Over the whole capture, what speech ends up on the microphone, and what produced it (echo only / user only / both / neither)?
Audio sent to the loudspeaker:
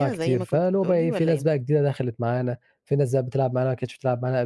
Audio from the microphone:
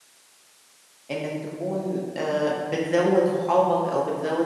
user only